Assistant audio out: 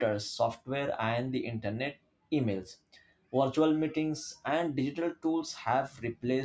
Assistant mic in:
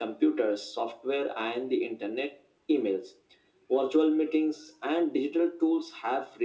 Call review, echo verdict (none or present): present